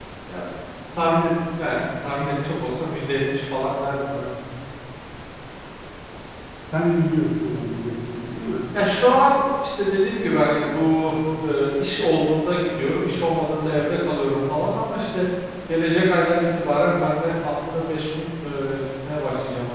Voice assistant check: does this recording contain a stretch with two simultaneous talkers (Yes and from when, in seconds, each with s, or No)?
No